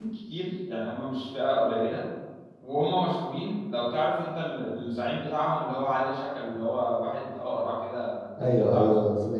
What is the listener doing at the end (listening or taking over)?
taking over